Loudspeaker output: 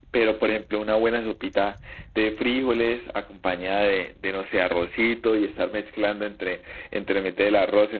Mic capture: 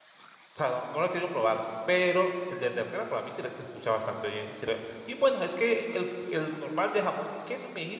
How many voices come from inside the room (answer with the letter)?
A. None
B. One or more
B